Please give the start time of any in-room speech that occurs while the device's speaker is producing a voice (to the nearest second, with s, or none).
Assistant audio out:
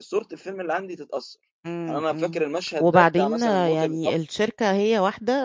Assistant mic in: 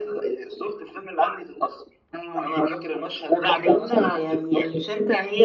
none